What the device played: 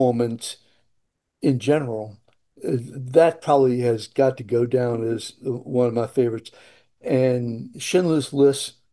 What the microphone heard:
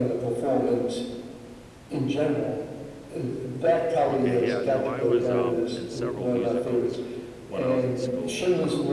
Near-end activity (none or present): present